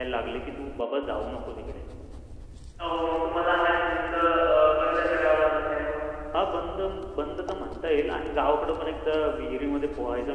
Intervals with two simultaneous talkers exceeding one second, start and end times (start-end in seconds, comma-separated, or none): none